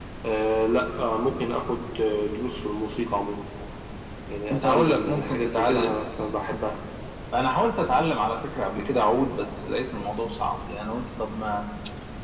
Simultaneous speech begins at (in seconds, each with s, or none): 4.5 s